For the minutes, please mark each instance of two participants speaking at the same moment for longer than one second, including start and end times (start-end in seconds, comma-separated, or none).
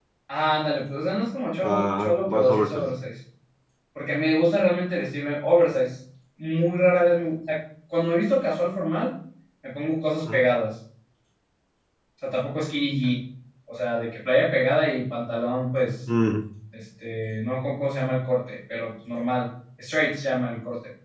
1.6-2.8